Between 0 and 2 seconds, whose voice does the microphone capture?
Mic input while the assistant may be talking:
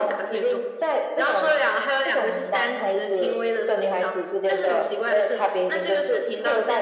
echo only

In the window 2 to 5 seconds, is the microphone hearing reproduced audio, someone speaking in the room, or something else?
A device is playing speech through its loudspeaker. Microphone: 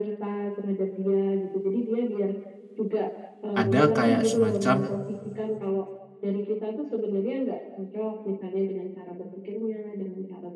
both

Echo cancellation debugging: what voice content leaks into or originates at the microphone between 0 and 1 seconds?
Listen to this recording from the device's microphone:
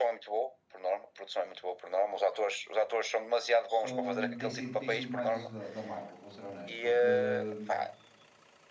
echo only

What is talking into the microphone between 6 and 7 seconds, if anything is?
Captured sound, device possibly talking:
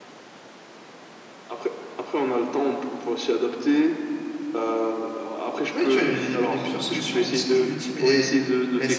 both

